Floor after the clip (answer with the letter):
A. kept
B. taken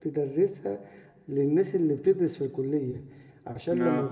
A